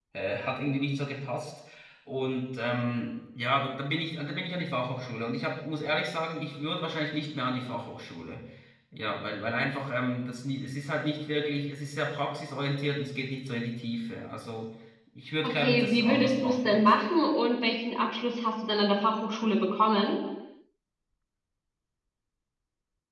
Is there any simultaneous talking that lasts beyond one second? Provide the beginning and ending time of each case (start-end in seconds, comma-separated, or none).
15.4-16.8